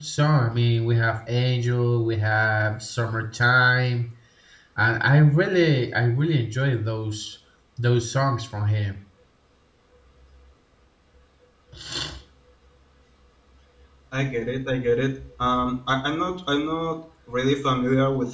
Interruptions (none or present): none